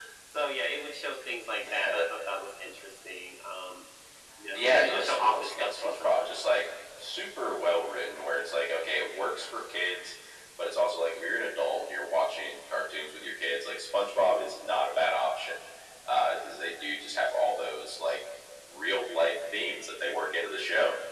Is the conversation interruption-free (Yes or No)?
No